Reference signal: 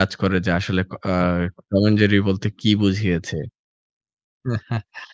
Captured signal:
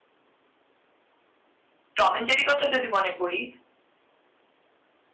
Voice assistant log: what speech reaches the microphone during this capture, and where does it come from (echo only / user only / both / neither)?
user only